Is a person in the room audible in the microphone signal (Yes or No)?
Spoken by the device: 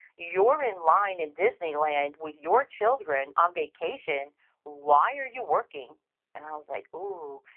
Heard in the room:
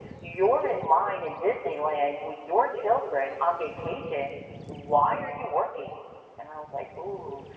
No